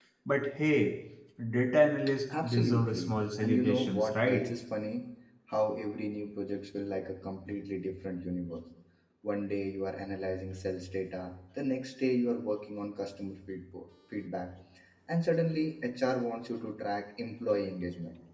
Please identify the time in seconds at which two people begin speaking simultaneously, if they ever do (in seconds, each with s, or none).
2.3 s